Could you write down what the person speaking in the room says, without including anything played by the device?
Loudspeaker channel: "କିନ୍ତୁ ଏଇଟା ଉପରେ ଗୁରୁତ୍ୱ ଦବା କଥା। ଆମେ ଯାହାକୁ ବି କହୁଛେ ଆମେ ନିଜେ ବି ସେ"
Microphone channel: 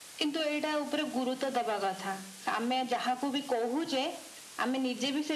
none

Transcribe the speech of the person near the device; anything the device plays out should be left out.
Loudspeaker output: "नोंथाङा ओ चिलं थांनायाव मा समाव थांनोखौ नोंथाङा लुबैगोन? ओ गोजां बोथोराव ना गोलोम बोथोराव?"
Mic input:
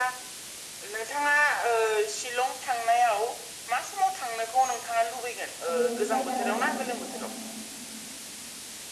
ओरैनो जायगा नायनो अ

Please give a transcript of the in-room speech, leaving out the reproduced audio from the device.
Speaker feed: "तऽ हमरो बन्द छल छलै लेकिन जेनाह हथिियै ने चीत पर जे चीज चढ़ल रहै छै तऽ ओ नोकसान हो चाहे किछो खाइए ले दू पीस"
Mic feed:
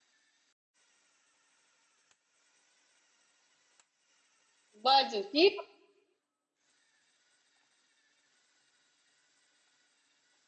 बाजू की

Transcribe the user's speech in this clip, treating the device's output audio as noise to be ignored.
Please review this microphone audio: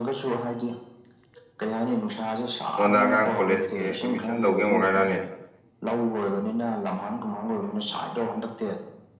ꯁꯣꯟꯗ ꯑꯉꯥꯡ ꯀꯣꯂꯦꯖꯀꯤ ꯑꯦꯠꯃꯤꯁꯟ ꯇꯧꯒꯦ ꯑꯃꯨꯛ ꯍꯥꯏꯔꯛꯑꯅꯤ

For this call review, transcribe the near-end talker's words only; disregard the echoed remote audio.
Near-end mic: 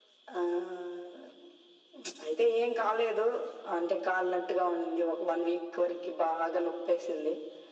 none

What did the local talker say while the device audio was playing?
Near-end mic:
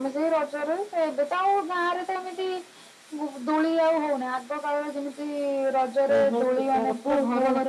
ହୁଁ ହୁଁ

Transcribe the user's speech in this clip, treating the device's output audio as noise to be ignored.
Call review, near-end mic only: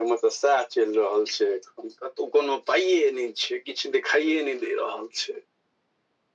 none

